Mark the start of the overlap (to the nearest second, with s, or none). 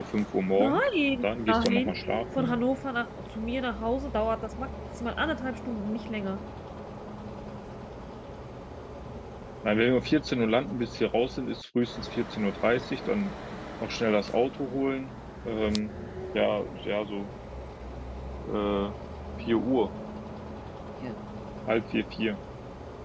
1 s